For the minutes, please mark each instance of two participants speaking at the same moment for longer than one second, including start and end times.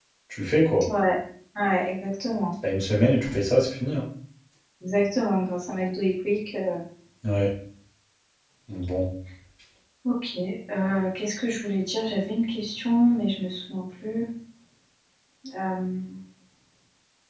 none

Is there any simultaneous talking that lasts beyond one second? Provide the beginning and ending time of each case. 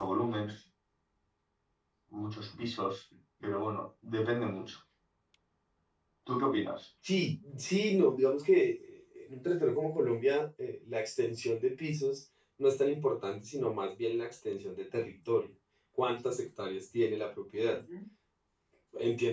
none

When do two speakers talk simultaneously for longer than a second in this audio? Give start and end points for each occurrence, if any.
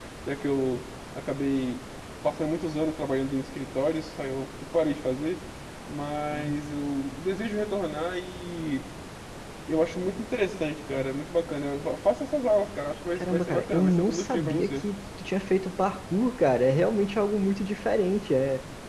13.2-14.8

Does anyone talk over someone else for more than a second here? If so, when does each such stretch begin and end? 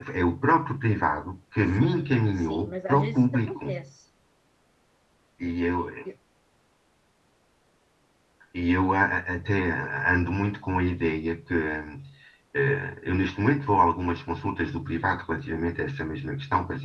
1.6-3.6

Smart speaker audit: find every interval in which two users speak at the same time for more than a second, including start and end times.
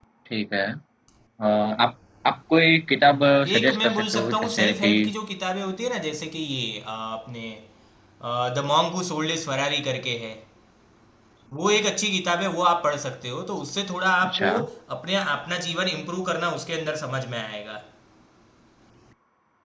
3.0-4.9

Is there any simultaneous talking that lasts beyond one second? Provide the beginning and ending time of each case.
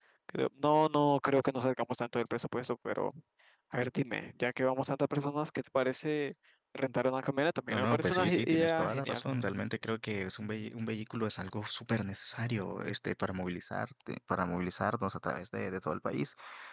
7.7-9.2

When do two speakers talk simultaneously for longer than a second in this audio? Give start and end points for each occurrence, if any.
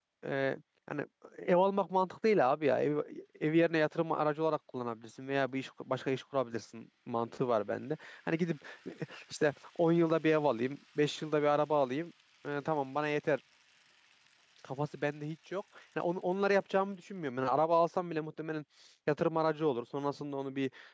none

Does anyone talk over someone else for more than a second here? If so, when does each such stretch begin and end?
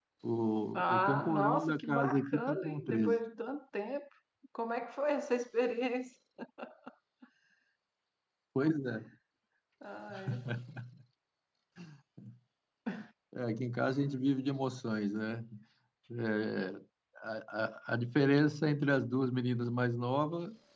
0.7-3.2

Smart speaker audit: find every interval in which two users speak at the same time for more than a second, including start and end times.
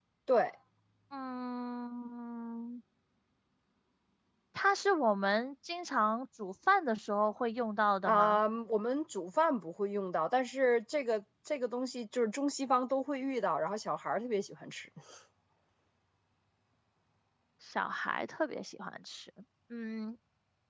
none

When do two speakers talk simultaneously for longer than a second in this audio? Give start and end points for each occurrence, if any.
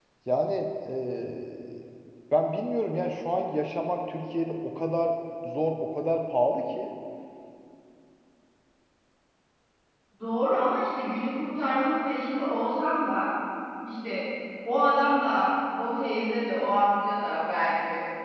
none

